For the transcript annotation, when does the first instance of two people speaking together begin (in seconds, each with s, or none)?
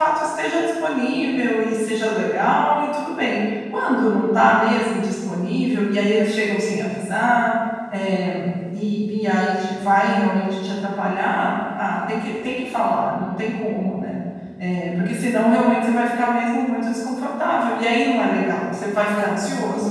none